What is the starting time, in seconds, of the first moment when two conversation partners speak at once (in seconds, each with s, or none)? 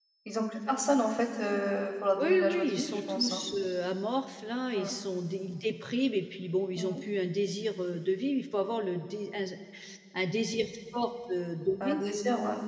2.1 s